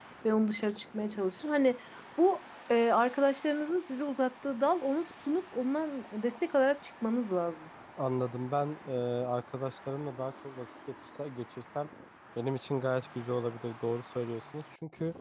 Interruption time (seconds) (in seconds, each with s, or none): none